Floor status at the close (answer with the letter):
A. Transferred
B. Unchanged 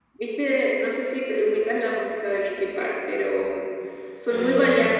A